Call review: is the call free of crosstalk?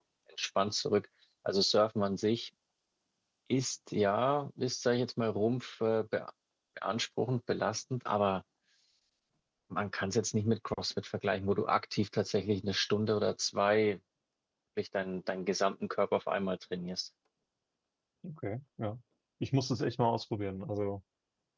Yes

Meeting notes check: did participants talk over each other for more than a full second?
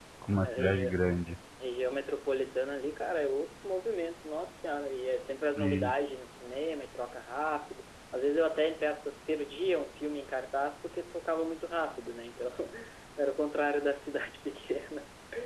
No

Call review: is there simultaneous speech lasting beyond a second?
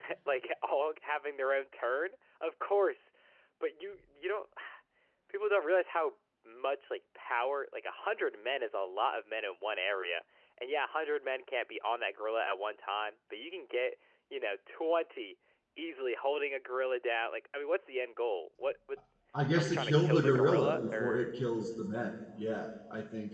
Yes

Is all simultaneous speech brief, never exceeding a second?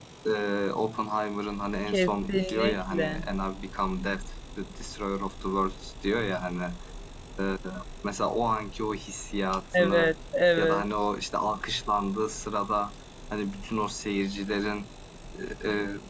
No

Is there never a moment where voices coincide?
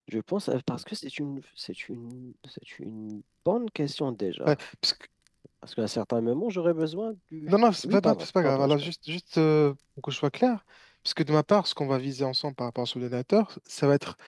No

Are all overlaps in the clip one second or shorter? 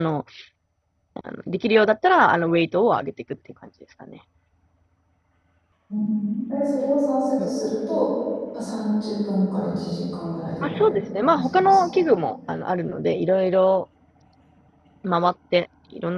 No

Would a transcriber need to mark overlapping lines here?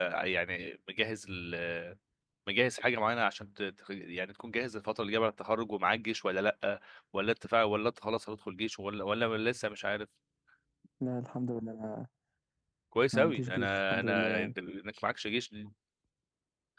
Yes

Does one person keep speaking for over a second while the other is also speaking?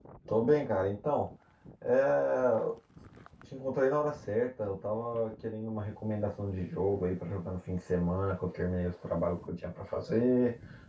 No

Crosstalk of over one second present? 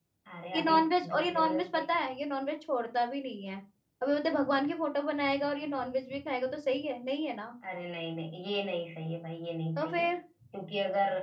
Yes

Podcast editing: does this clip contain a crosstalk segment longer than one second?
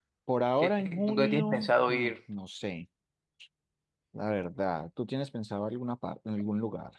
Yes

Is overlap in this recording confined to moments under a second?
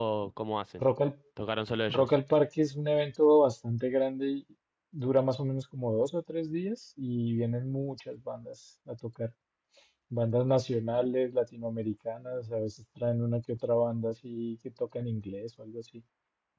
Yes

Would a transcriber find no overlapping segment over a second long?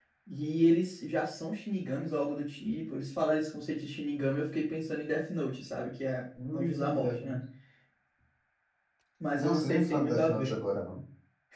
No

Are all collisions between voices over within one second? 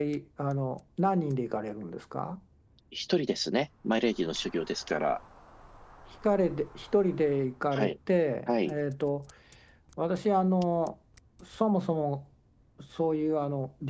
Yes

